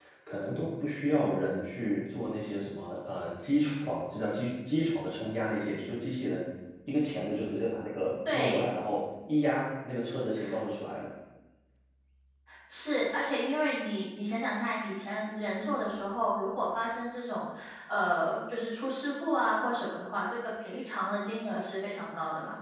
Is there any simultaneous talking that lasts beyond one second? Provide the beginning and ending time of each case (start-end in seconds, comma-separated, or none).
none